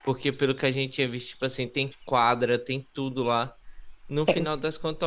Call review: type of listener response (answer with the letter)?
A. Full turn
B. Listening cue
B